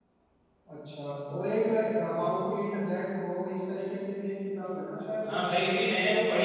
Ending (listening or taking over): taking over